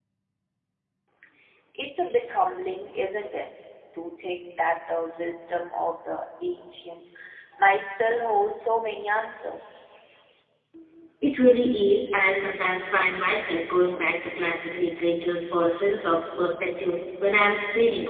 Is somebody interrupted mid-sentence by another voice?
No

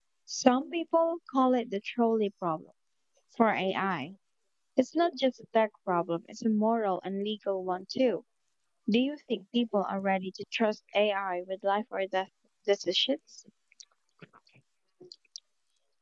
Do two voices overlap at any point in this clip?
No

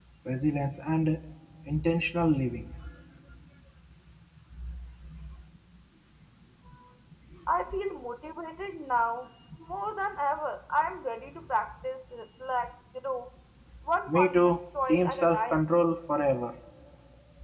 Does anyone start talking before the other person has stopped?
Yes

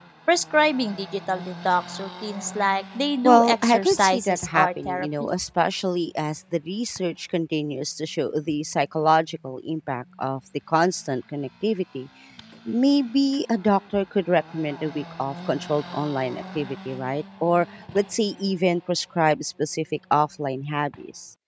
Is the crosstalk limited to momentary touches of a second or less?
No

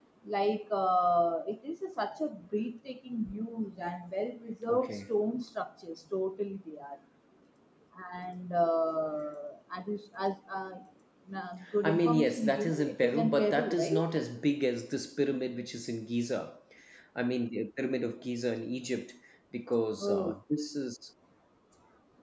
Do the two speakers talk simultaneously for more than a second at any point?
Yes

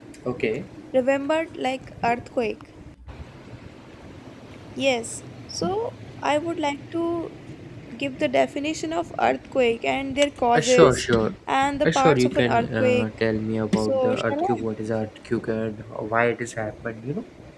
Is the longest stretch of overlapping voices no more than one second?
No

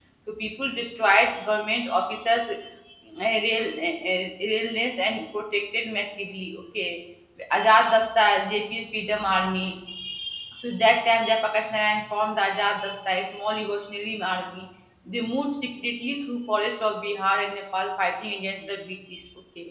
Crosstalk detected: No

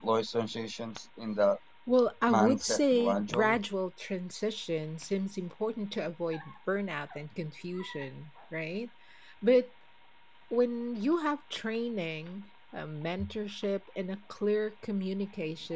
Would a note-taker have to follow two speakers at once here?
Yes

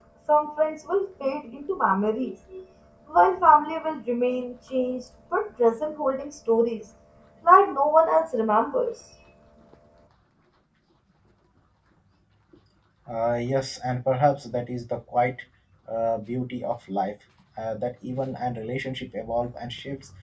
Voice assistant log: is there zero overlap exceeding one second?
Yes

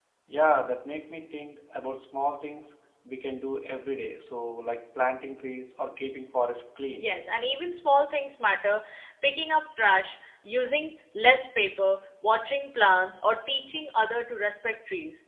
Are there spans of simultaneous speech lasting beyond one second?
No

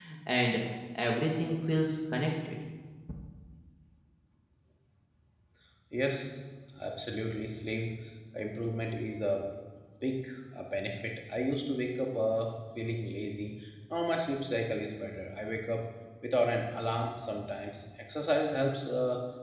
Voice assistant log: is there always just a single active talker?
Yes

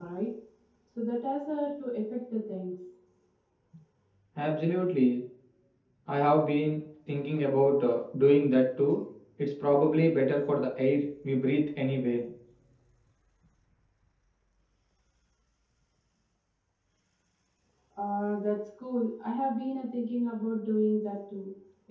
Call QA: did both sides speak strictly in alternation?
Yes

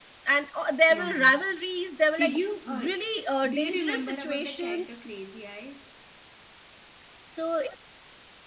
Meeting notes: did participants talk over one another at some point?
Yes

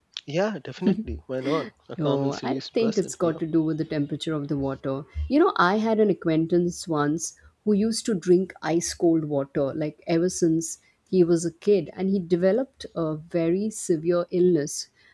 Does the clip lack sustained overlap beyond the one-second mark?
No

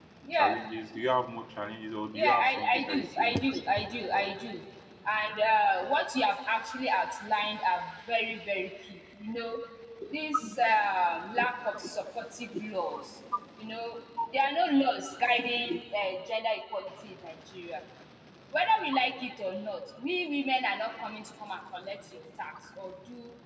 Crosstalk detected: Yes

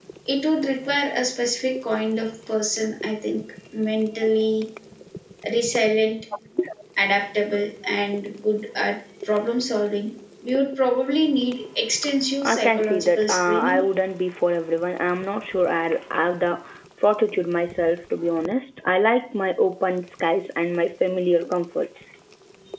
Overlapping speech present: Yes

